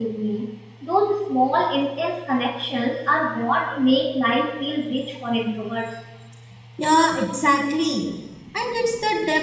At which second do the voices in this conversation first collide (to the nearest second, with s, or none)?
none